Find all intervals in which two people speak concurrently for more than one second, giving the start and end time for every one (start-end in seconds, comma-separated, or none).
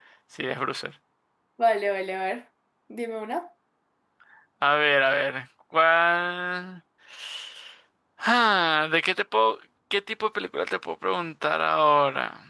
none